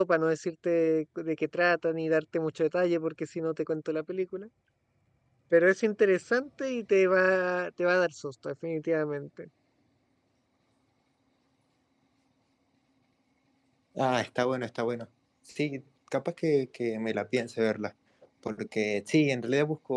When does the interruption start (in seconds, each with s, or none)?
none